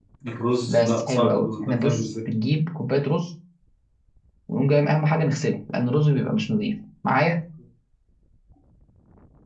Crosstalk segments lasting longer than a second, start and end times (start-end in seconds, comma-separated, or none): 0.7-2.1